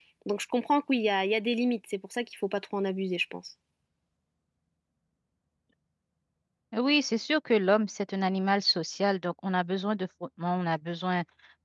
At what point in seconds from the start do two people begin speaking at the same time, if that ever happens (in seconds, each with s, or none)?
none